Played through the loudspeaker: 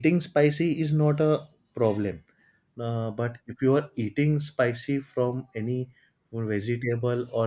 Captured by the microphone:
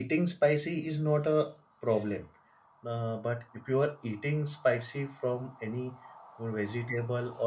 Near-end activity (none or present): none